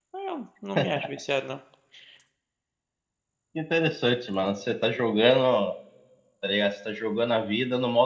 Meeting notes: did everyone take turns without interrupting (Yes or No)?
Yes